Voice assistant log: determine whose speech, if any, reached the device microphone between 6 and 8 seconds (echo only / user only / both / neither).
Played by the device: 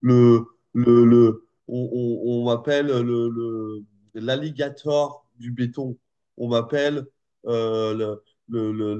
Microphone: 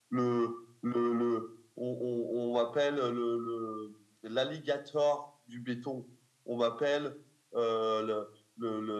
echo only